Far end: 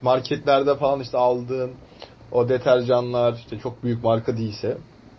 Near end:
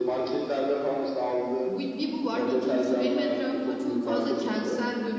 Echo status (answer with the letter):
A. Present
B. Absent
A